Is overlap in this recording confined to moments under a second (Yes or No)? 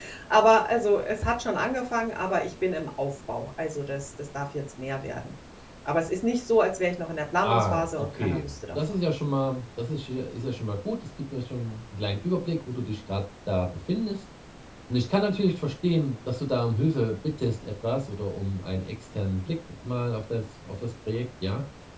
No